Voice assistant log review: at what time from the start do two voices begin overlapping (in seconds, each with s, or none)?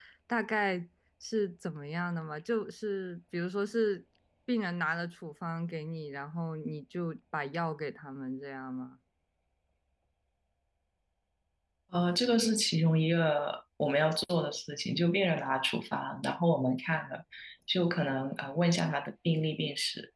none